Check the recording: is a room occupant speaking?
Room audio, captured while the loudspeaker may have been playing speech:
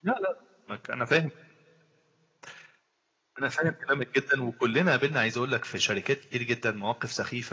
No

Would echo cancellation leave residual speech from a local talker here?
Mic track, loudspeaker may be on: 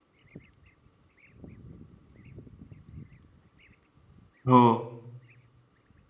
Yes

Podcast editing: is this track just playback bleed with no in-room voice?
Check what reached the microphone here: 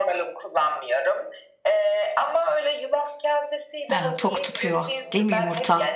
No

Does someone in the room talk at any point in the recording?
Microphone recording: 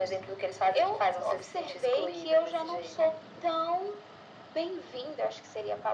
No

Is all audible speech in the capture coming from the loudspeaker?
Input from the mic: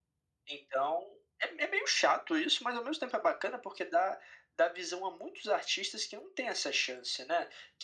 Yes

